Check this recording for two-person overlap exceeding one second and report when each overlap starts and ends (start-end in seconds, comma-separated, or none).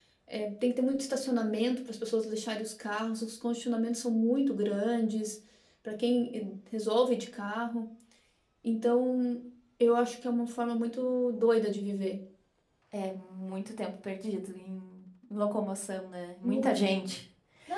none